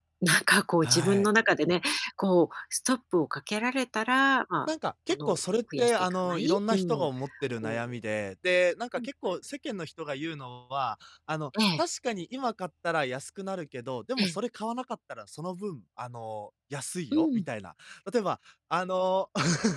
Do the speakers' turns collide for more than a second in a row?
Yes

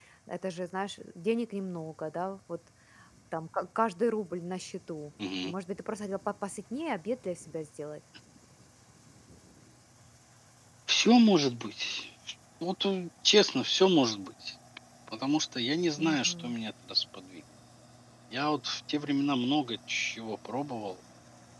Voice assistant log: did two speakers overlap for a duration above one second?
No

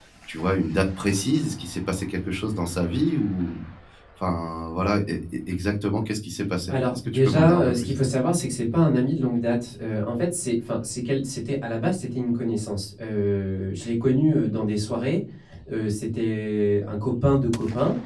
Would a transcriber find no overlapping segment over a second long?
No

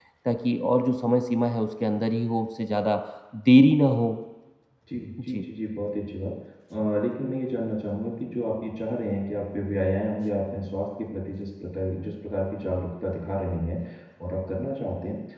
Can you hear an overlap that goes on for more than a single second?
No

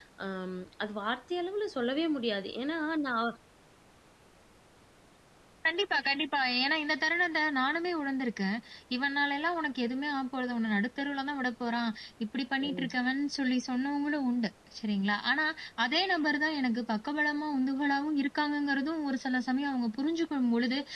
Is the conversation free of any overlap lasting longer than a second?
Yes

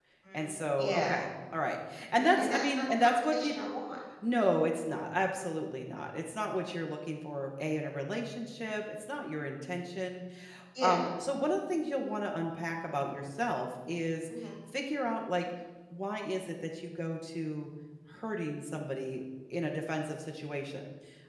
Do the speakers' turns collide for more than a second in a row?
Yes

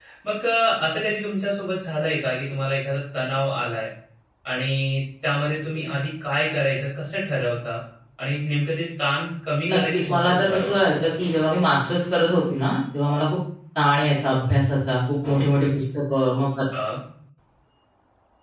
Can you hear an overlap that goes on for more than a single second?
Yes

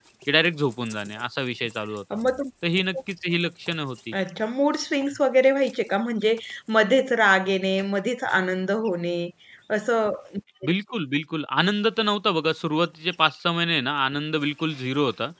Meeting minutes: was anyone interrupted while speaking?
No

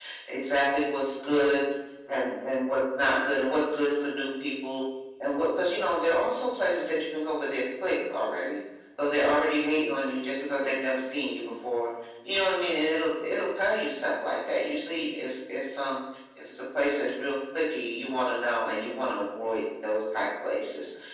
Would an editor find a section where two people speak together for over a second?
No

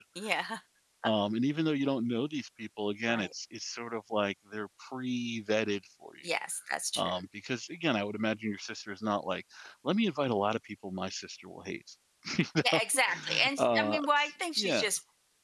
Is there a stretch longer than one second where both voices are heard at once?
Yes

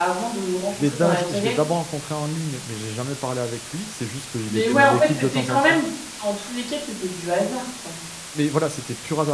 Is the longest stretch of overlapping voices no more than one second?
No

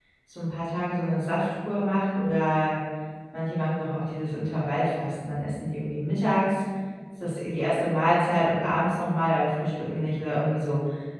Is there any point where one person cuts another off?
No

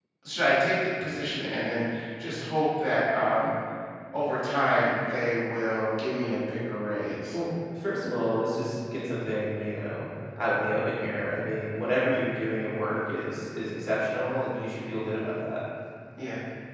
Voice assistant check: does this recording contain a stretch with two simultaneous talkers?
No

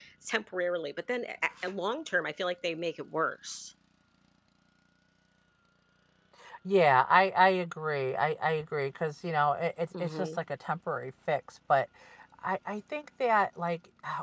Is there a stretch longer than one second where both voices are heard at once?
No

